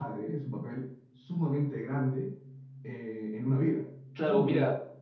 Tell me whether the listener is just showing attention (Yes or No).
No